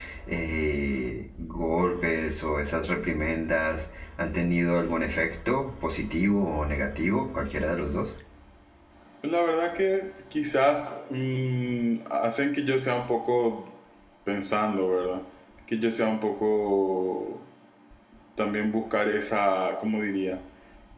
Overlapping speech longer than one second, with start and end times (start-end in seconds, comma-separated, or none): none